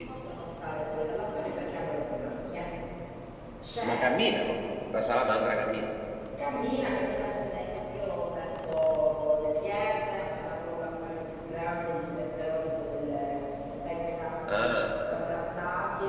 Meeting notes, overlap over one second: none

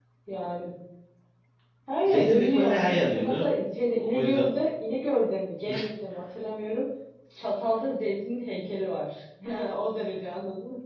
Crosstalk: present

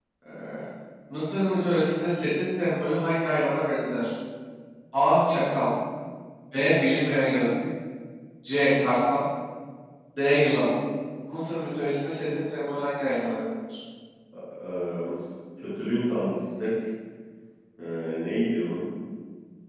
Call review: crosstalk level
none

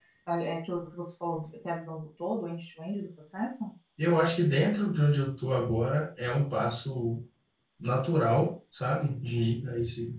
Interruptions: none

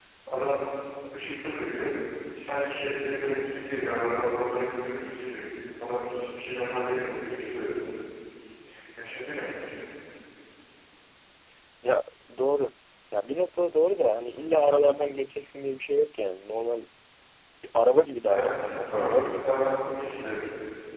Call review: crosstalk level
present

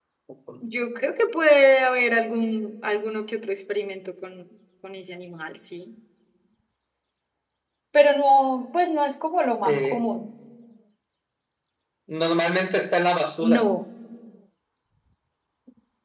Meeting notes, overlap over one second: none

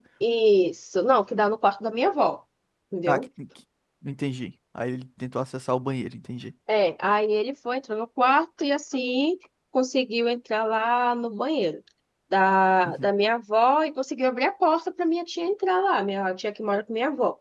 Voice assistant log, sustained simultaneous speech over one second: none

